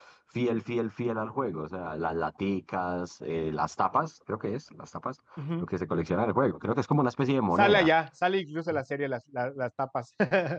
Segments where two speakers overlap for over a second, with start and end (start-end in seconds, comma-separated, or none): none